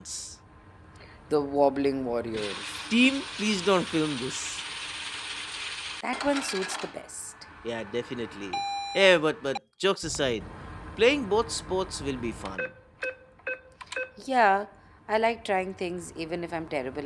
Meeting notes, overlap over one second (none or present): none